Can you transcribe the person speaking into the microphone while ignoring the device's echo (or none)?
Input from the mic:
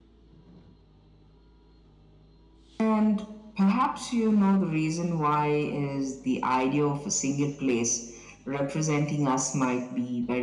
none